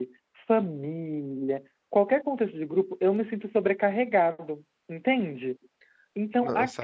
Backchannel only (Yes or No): Yes